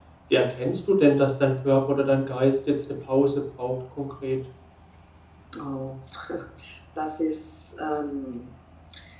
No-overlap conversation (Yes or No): Yes